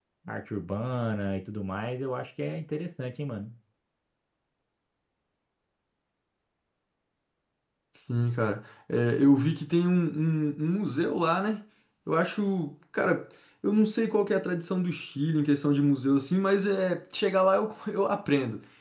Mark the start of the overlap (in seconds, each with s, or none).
none